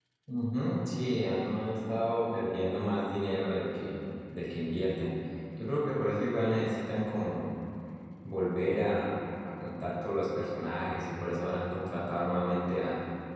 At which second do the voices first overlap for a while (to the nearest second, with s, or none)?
none